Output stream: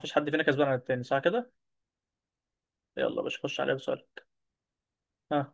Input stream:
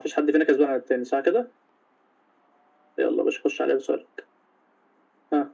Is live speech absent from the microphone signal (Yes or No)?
Yes